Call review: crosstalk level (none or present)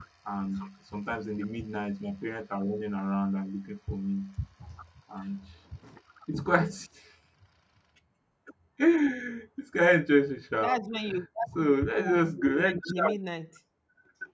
present